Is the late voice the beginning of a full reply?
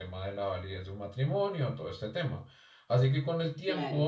No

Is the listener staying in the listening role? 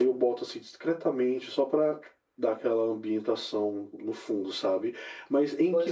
Yes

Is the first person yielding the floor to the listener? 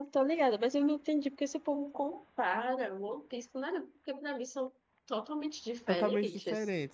Yes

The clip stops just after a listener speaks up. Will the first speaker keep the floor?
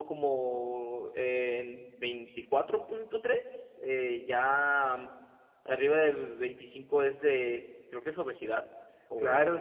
No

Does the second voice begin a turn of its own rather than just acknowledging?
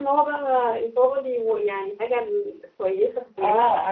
Yes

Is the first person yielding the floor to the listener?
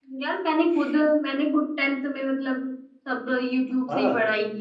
Yes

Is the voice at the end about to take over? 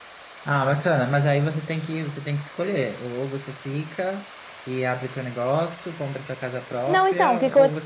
Yes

